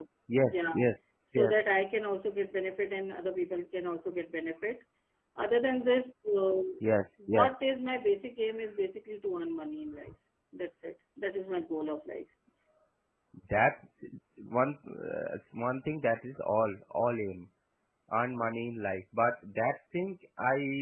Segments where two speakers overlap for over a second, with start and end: none

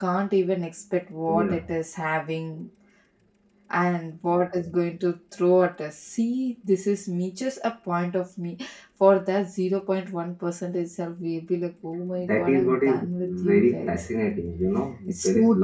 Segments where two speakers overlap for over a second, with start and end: 12.3-14.1

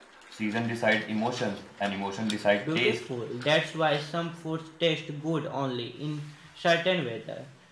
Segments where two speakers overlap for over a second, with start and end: none

